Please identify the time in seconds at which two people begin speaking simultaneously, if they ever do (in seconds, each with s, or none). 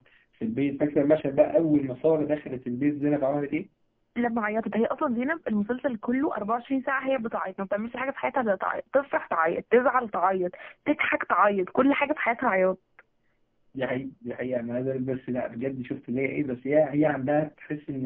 none